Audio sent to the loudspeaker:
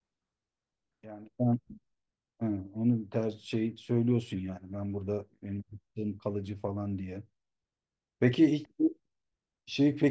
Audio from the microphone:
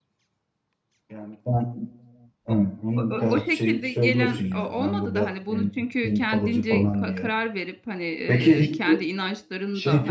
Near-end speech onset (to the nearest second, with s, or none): 2 s